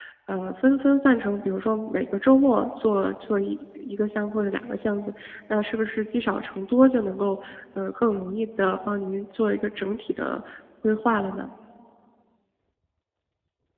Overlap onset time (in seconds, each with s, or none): none